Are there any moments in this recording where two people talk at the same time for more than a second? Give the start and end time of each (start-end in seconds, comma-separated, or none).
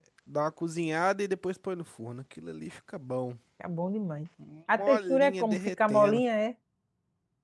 4.8-6.2